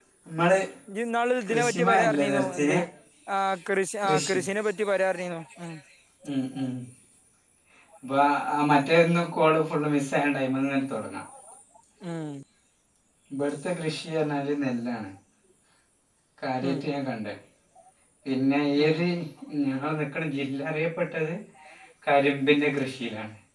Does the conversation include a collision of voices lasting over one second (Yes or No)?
Yes